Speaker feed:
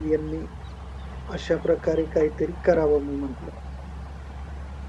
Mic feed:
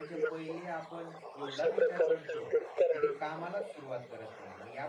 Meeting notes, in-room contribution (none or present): present